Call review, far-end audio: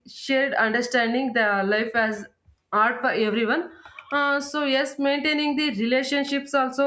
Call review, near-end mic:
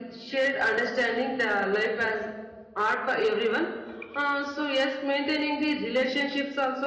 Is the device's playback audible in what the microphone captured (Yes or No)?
Yes